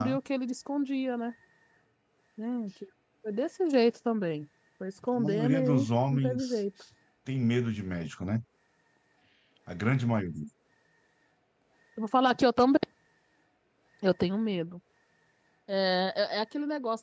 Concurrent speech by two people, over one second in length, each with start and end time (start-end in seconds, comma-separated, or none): 5.2-6.4